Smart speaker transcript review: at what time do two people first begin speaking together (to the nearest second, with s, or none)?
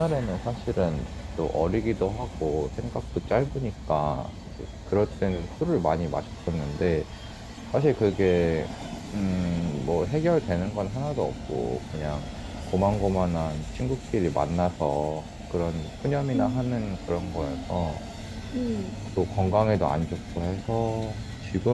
16 s